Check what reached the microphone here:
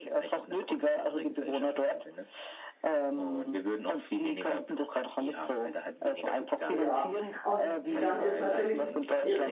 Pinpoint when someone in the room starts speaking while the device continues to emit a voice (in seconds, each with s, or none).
6.7 s